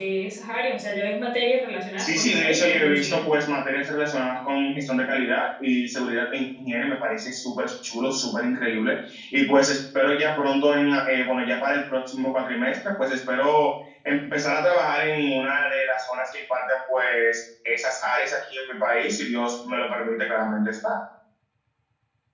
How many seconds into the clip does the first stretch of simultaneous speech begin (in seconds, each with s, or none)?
2.0 s